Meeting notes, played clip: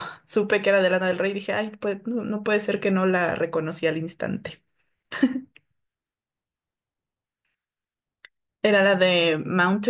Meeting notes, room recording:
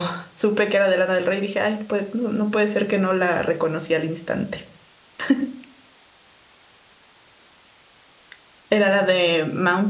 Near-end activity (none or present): none